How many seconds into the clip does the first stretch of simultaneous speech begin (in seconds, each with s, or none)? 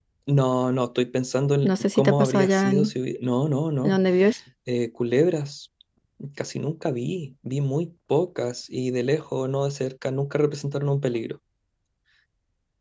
1.6 s